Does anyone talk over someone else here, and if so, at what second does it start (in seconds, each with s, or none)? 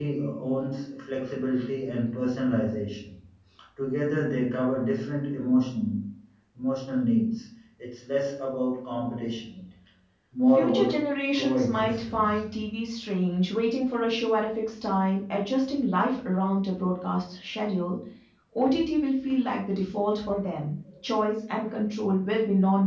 10.5 s